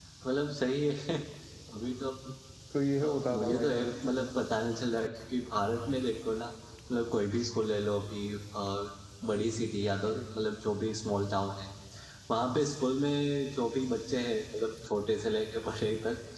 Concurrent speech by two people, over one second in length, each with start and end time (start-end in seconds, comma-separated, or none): 3.0-4.4